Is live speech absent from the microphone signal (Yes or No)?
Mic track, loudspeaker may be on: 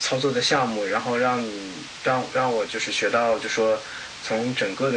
Yes